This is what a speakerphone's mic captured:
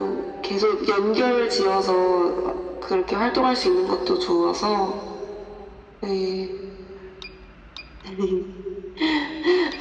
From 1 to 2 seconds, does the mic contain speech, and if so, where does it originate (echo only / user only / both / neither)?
echo only